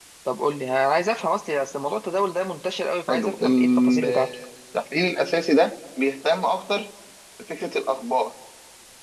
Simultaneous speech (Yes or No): Yes